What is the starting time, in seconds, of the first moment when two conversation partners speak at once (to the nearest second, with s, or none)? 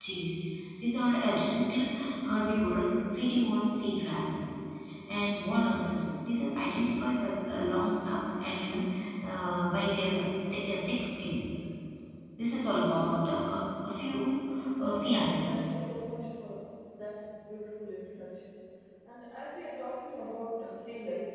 15 s